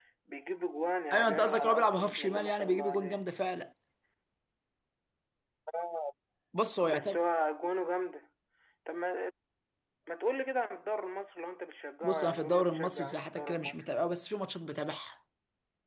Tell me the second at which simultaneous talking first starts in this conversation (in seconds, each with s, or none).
1.1 s